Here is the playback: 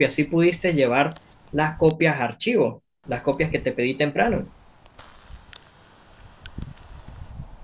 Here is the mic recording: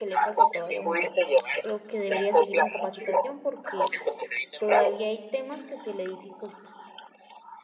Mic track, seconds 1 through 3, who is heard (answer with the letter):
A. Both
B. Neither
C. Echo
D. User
A